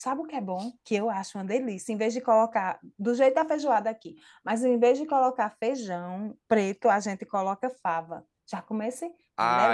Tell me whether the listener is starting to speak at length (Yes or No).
Yes